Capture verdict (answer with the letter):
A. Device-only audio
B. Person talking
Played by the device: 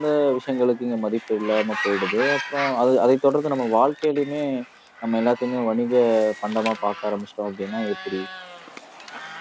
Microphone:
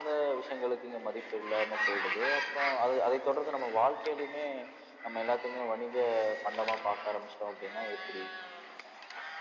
A